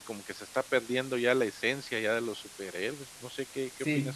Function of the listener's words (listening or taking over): taking over